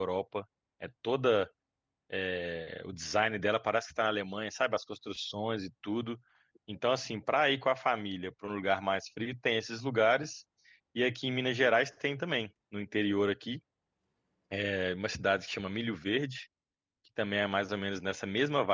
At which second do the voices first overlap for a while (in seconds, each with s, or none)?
none